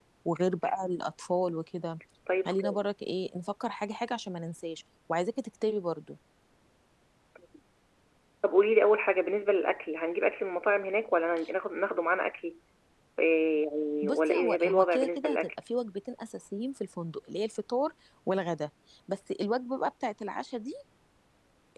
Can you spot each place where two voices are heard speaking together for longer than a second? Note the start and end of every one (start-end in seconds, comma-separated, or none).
14.0-15.4